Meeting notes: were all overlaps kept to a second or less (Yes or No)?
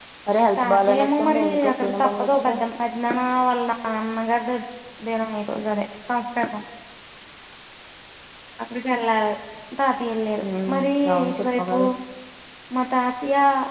No